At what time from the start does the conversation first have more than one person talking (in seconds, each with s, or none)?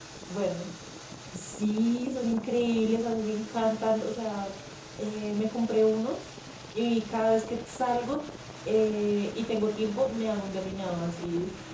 none